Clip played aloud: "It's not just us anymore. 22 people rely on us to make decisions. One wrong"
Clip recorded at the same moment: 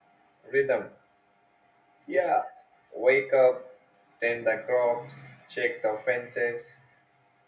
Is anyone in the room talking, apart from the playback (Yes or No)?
Yes